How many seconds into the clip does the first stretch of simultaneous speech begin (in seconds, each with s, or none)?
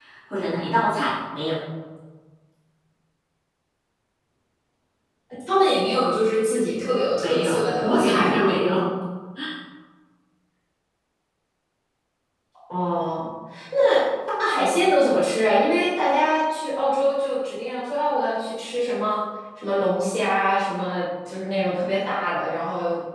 7.2 s